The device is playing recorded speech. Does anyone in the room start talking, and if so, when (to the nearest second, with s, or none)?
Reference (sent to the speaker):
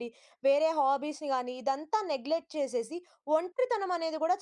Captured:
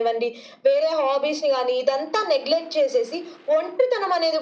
none